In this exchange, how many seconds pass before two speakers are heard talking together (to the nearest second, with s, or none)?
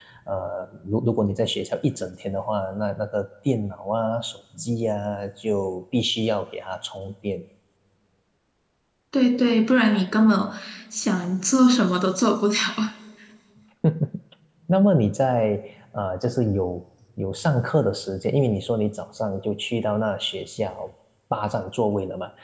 none